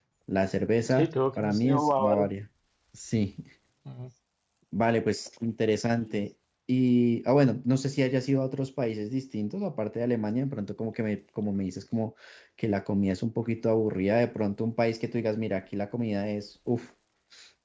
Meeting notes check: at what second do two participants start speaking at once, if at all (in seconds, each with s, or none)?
0.9 s